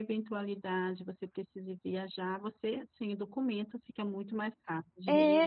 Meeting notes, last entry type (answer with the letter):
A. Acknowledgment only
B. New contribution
B